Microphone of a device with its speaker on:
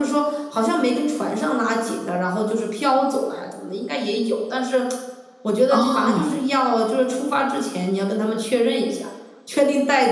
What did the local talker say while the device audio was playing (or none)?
哦。